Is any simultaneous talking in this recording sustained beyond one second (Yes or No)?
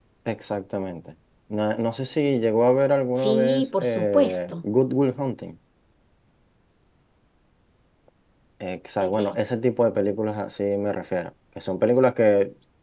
Yes